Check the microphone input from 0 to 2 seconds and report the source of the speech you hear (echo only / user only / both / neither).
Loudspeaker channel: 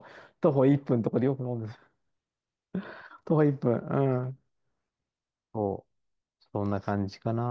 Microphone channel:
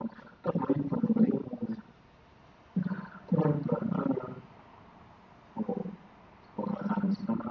echo only